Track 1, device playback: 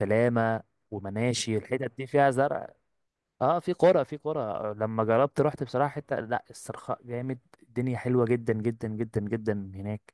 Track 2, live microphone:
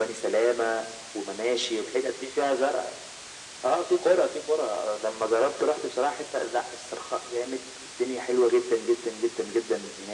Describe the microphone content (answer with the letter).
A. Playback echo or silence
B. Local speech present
A